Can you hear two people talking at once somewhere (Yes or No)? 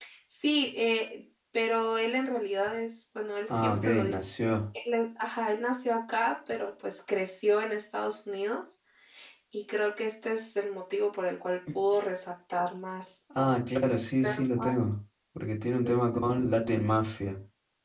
Yes